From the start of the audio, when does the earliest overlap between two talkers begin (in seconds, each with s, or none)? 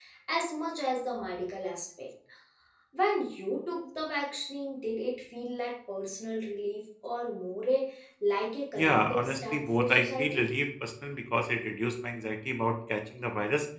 8.8 s